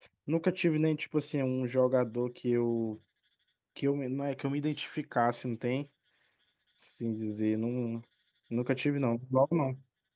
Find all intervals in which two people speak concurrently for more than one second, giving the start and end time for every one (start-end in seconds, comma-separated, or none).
none